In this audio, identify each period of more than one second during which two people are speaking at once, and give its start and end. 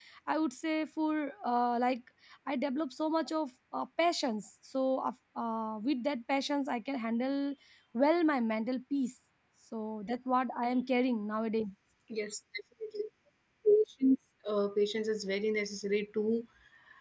none

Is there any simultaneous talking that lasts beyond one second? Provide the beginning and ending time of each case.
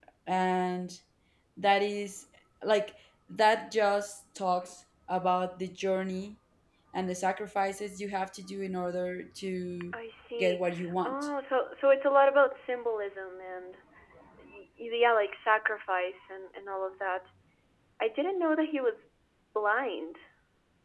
none

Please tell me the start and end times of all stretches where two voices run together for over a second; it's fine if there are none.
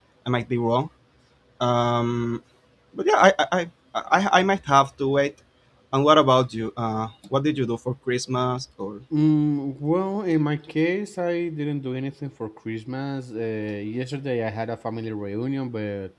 none

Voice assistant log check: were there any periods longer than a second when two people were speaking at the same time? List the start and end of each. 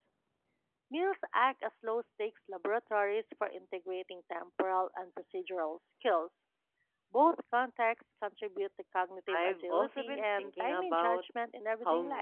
9.3-11.2

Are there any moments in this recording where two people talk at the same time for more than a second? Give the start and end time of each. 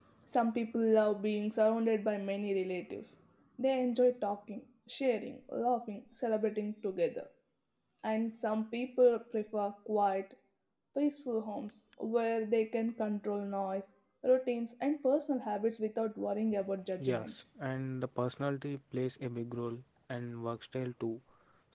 none

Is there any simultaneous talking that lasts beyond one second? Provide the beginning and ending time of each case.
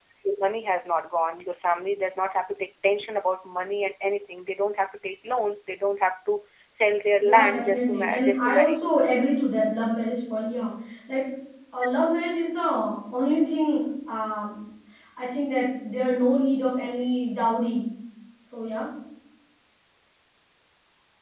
7.2-8.9

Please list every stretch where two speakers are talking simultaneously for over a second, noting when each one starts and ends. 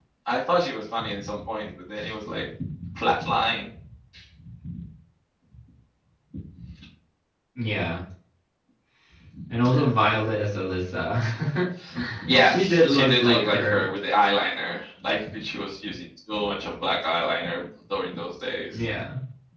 12.4-13.9

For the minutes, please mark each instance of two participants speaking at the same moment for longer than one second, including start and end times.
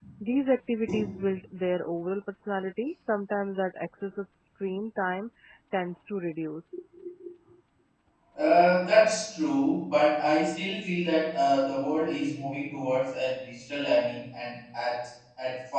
none

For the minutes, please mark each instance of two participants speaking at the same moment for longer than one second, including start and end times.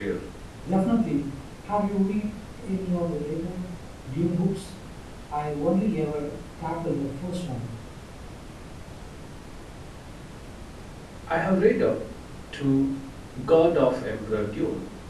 none

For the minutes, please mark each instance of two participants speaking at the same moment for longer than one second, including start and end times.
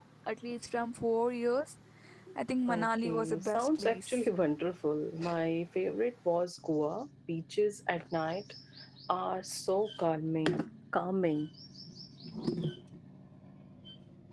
2.7-4.3

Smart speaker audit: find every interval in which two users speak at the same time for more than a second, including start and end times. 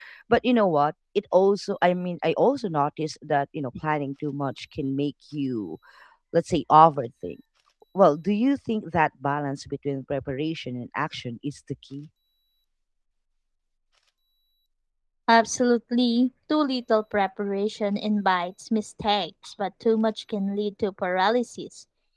none

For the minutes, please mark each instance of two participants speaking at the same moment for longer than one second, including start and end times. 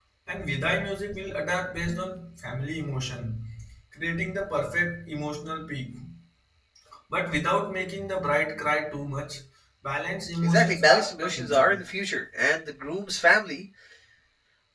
10.4-11.8

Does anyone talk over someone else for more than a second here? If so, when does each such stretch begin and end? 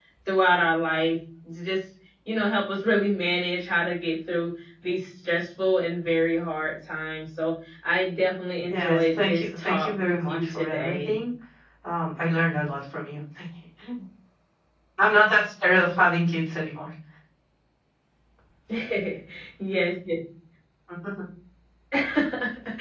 8.7-11.1

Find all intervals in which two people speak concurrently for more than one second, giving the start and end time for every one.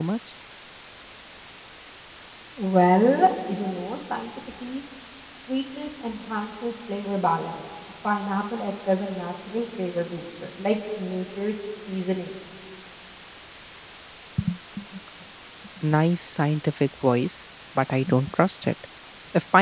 none

